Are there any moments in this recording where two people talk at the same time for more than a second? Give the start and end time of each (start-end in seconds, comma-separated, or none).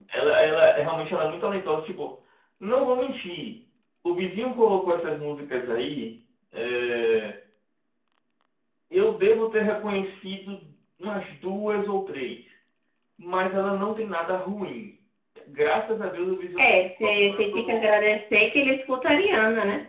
16.6-17.9